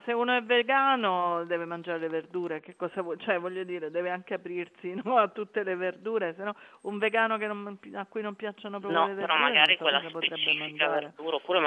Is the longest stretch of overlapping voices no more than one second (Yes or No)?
No